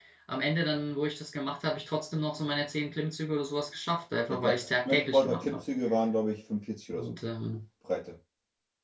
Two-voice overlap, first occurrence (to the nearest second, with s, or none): 4 s